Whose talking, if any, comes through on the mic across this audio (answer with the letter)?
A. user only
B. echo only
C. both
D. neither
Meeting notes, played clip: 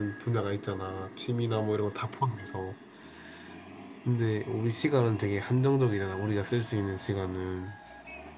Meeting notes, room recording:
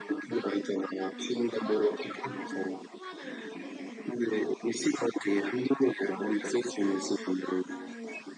C